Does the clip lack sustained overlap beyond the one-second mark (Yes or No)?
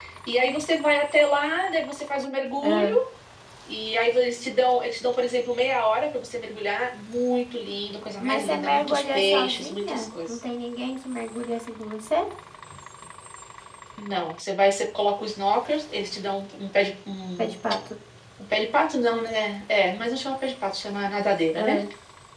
No